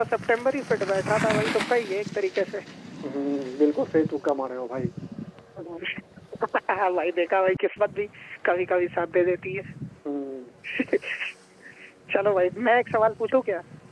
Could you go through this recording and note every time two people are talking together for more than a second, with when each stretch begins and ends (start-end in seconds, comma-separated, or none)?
none